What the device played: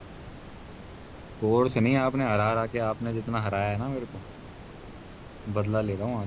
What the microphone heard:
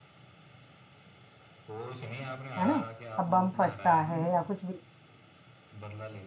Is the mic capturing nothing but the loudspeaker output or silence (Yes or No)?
No